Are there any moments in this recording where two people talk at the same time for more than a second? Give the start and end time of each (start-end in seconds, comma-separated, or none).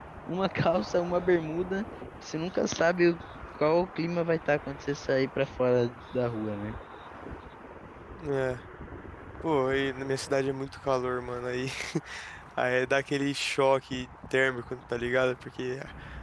none